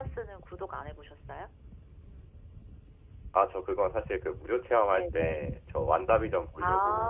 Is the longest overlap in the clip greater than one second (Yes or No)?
No